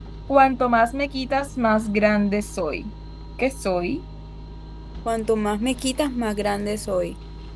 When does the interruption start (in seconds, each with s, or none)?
none